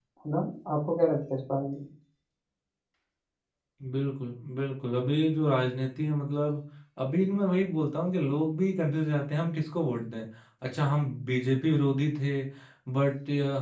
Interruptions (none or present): none